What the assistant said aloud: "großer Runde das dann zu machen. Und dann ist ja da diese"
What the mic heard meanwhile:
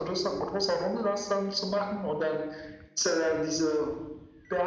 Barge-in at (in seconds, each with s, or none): none